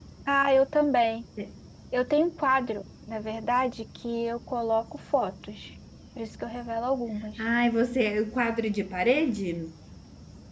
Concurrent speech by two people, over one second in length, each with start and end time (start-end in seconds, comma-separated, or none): none